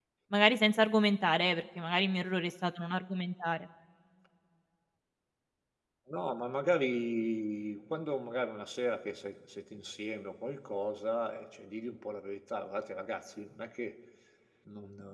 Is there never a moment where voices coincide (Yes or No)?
Yes